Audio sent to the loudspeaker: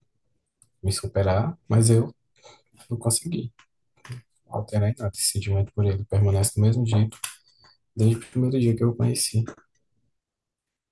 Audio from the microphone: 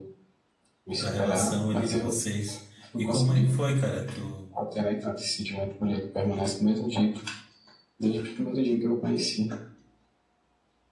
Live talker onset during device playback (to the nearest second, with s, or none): 1 s